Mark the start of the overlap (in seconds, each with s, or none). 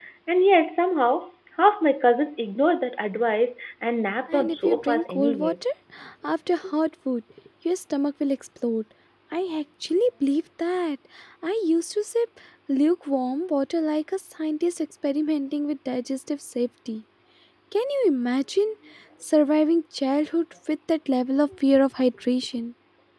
4.3 s